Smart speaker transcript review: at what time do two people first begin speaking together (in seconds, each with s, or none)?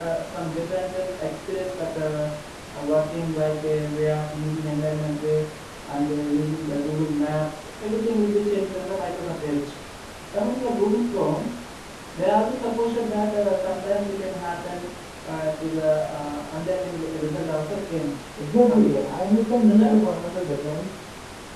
18.4 s